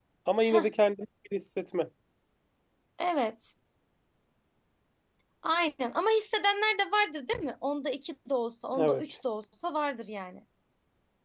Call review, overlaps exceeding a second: none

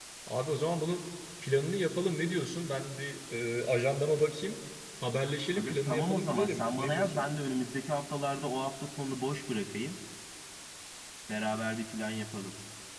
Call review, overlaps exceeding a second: present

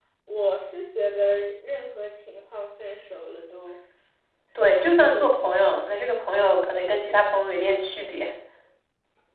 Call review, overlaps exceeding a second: present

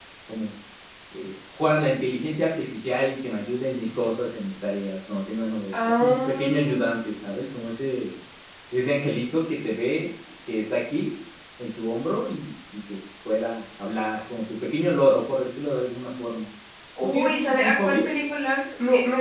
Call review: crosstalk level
present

